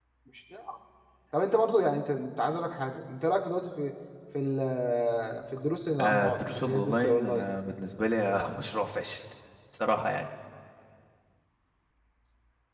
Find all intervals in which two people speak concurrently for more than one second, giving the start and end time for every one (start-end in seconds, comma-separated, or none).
6.0-7.5